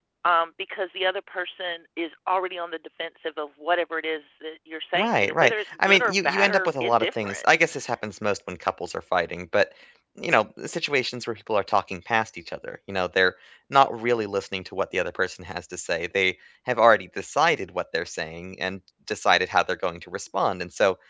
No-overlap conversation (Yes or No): No